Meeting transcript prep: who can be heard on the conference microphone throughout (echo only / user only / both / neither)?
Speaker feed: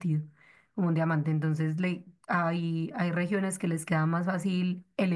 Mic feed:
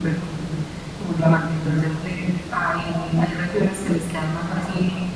echo only